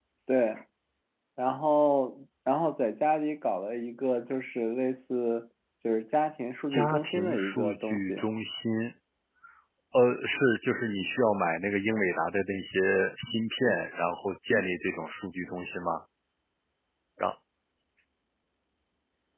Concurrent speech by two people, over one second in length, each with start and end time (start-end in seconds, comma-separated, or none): 6.7-8.2